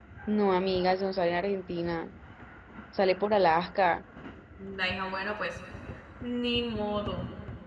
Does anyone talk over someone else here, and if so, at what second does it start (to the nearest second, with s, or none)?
none